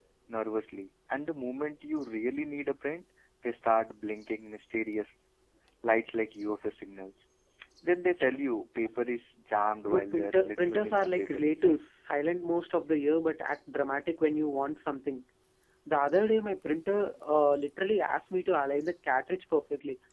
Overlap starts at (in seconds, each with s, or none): 9.9 s